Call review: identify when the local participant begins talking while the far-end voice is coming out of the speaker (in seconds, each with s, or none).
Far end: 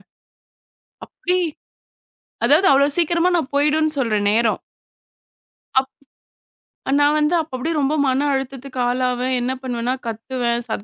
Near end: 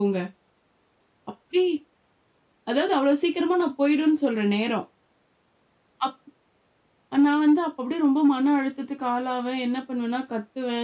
none